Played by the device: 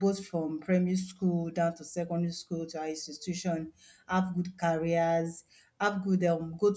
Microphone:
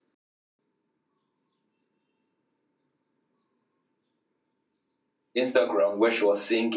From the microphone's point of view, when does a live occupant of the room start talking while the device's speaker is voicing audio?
5.4 s

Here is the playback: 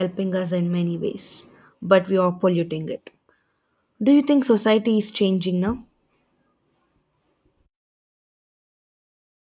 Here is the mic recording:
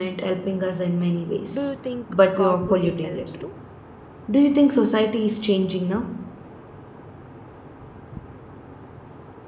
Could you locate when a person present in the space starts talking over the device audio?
1.6 s

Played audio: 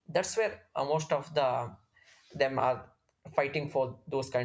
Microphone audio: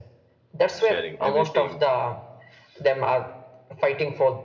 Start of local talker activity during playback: 0.8 s

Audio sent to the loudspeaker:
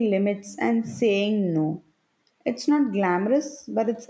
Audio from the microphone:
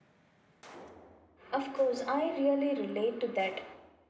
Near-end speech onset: 1.5 s

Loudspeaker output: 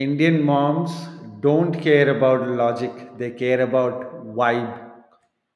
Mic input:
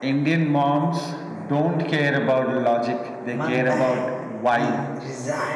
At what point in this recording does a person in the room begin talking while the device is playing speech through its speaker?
3.3 s

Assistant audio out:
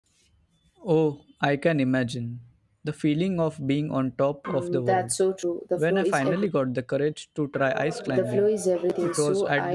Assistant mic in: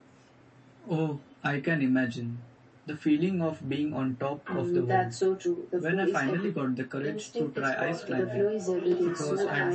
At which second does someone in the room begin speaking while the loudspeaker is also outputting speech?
7.0 s

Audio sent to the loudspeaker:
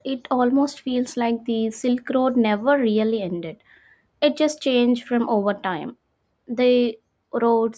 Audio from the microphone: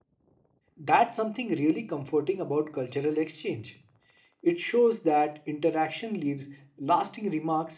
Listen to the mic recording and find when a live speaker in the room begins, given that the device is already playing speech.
0.8 s

